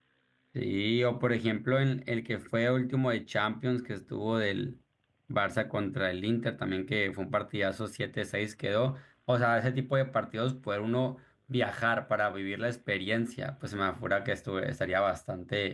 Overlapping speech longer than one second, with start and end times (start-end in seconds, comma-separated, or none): none